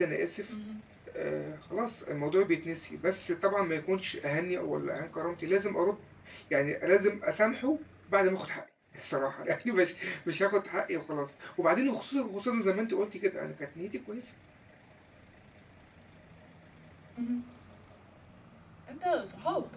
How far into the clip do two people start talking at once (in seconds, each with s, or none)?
none